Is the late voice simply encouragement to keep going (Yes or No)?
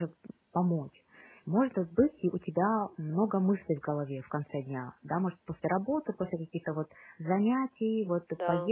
Yes